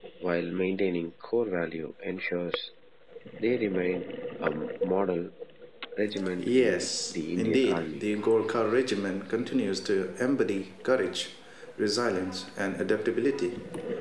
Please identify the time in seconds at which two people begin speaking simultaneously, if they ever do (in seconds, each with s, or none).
6.4 s